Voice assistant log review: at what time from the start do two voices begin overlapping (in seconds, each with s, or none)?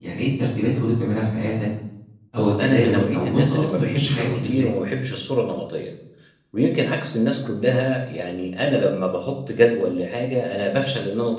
2.4 s